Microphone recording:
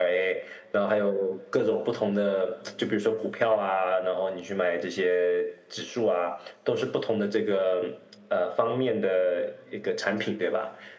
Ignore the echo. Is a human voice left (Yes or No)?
No